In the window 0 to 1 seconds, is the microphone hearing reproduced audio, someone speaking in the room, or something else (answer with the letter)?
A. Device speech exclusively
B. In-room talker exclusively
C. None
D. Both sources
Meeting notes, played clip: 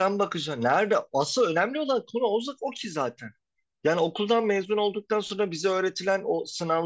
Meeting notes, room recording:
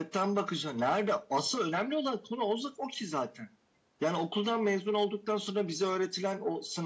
A